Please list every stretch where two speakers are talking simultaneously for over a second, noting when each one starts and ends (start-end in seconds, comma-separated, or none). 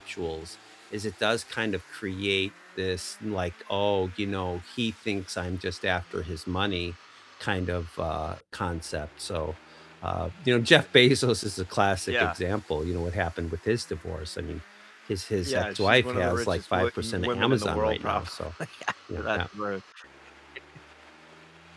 15.4-18.3